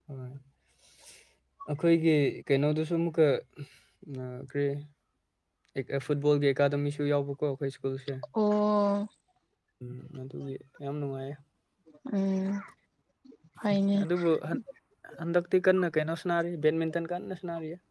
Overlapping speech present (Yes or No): No